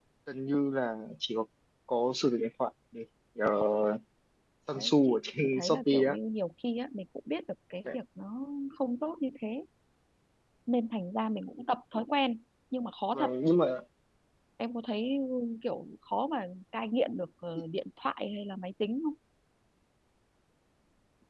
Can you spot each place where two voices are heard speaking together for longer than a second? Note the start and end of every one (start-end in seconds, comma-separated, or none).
4.8-6.2